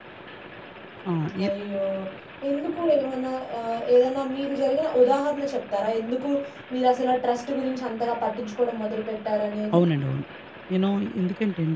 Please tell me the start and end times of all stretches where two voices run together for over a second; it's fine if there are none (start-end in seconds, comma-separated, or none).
none